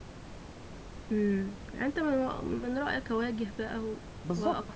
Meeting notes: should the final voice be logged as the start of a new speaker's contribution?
Yes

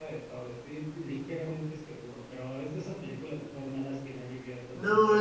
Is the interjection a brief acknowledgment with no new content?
No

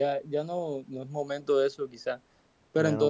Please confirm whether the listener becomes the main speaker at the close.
No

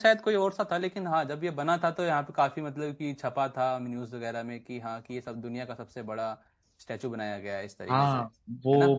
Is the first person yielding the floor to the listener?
Yes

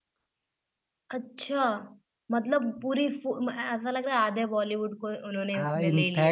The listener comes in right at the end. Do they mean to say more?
Yes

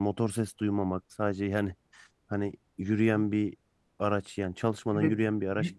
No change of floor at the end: No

